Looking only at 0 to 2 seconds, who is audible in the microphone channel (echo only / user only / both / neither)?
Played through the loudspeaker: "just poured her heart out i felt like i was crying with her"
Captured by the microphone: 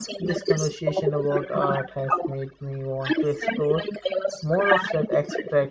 both